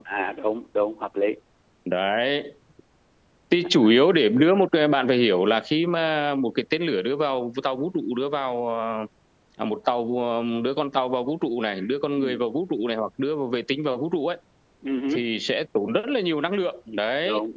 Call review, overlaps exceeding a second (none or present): none